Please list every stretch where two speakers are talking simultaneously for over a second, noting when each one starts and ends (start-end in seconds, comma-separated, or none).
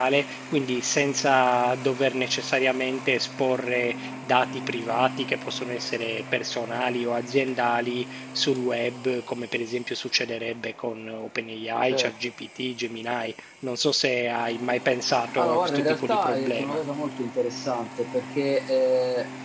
15.4-16.8